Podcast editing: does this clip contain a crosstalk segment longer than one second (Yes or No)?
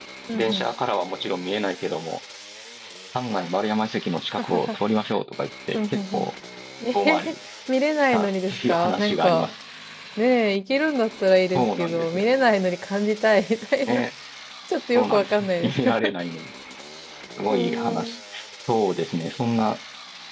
Yes